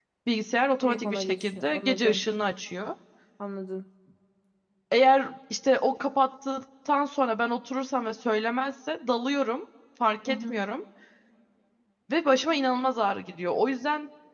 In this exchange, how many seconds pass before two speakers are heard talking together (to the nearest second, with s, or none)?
1 s